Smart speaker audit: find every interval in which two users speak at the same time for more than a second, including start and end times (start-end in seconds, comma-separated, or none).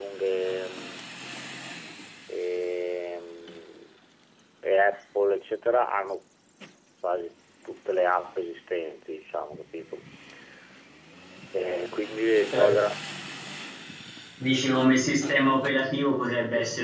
none